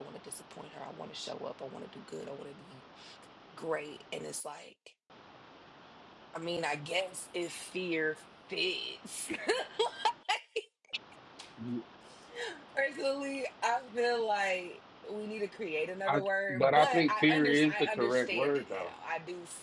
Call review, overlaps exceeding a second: present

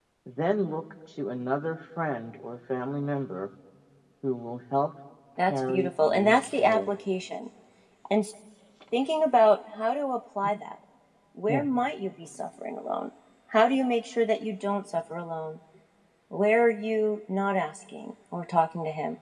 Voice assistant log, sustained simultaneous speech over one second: present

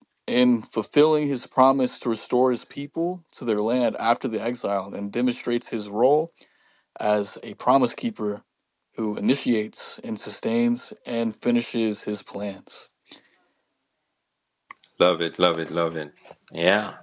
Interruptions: none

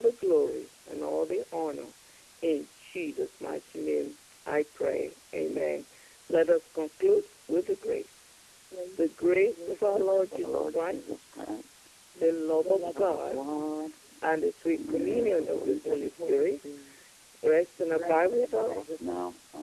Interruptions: present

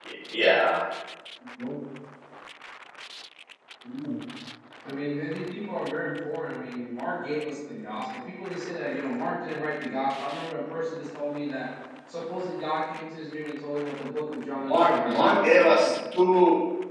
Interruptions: present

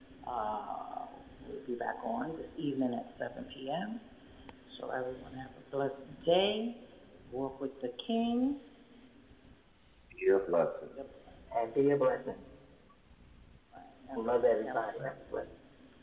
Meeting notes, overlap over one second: present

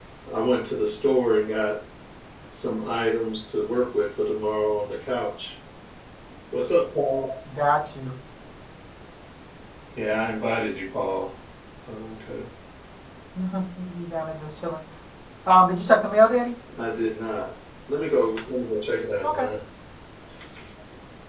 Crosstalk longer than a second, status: none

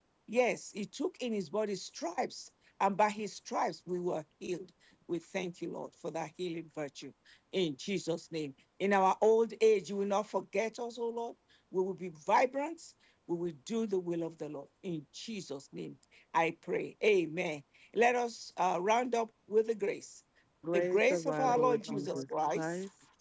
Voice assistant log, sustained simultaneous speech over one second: present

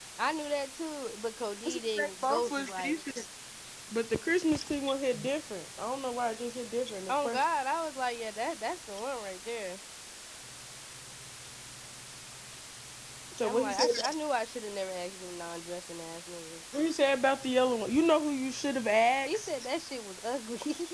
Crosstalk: present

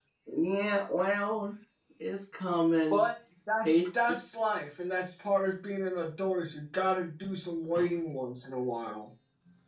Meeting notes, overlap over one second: none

